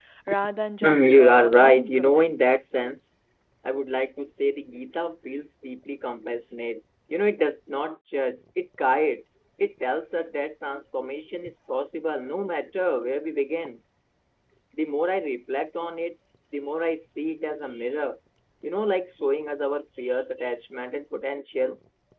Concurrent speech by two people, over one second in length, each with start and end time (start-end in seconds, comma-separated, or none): 0.8-2.3